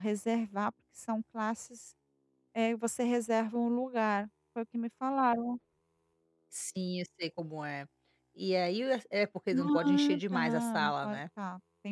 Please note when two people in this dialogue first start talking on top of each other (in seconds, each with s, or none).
9.5 s